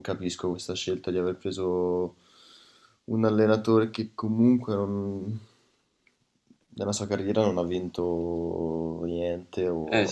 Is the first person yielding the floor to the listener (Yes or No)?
Yes